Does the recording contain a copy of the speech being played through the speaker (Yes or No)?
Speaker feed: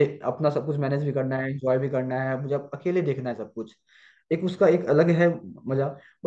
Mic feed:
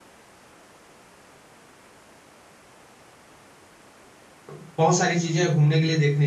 No